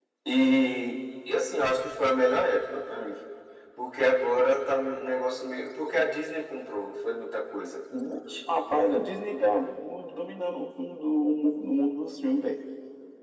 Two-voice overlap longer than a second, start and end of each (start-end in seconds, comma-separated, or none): none